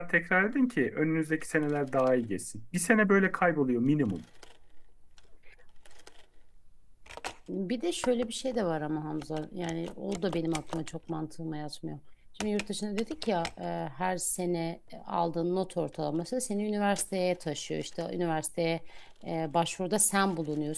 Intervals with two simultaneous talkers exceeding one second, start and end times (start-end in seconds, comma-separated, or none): none